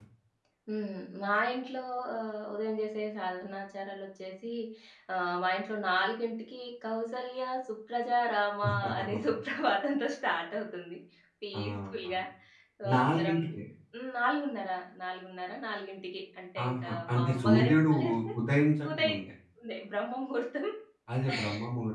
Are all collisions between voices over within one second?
No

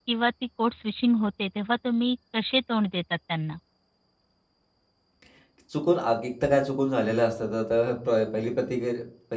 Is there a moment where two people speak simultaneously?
No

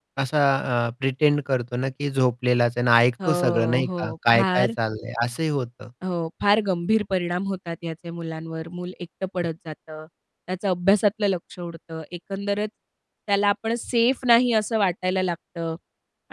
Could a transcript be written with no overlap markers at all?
No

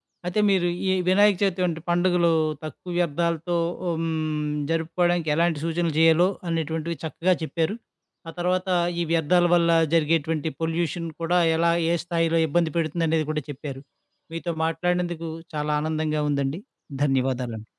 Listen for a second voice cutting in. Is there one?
No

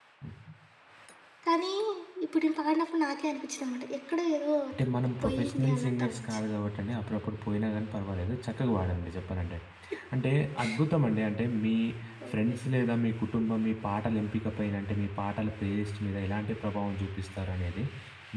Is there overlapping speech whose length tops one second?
Yes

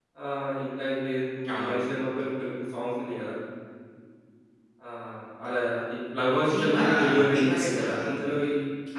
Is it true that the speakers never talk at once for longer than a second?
No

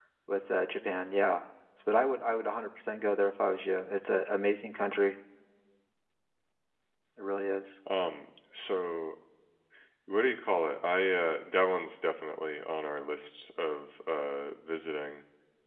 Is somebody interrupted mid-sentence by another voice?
No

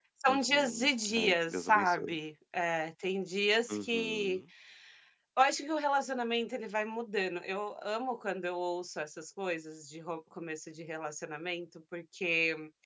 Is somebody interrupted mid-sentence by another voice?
Yes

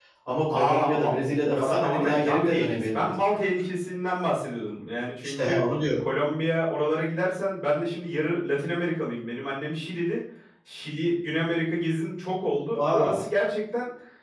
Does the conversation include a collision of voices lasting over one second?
Yes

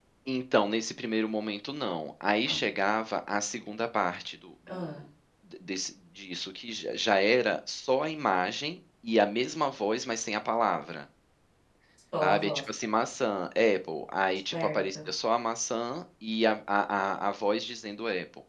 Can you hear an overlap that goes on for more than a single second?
No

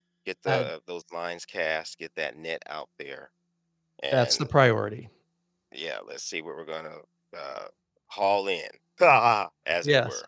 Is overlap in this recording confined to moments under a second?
Yes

